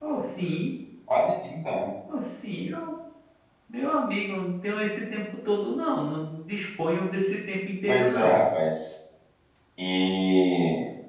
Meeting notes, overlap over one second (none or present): none